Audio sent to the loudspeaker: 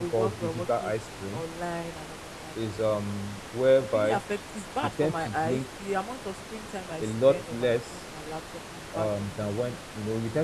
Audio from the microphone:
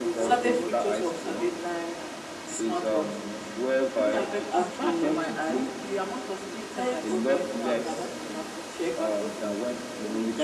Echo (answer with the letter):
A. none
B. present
B